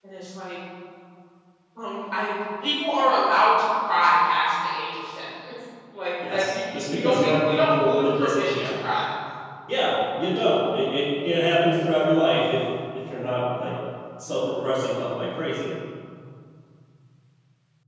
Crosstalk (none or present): present